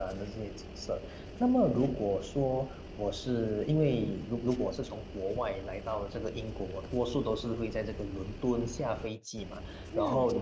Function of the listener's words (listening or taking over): listening